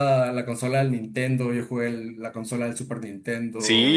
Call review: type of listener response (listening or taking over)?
taking over